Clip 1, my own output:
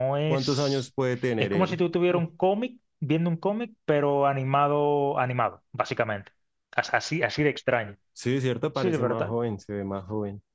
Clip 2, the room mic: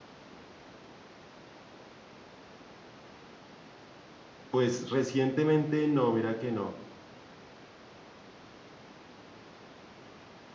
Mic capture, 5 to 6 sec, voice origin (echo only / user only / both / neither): user only